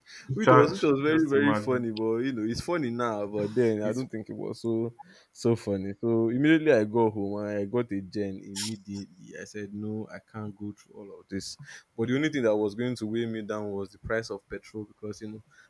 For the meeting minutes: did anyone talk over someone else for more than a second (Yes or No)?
Yes